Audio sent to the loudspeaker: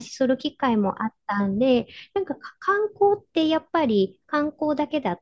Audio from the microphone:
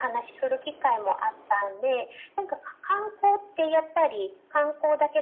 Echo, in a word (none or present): present